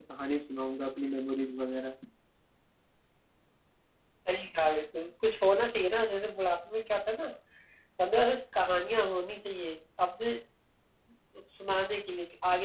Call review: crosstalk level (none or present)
none